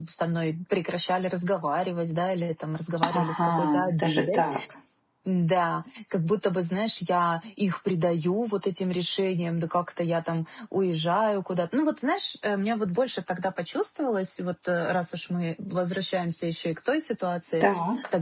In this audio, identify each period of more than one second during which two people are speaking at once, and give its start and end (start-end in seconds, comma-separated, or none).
3.2-4.4